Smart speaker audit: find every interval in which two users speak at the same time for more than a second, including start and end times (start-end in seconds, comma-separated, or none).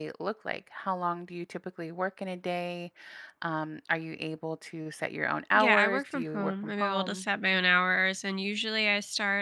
5.6-7.2